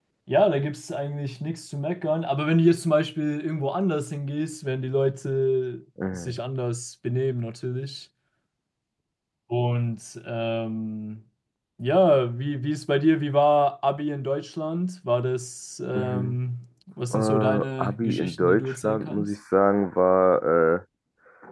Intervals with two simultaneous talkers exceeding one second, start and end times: 17.1-19.3

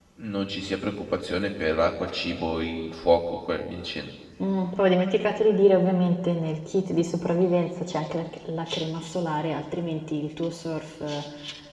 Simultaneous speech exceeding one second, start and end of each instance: none

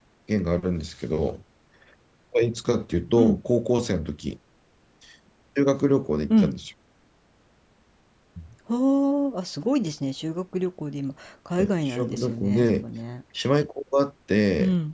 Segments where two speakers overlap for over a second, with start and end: 11.6-12.9

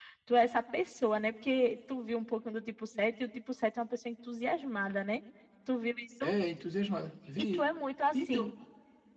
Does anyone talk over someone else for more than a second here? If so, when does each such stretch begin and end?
none

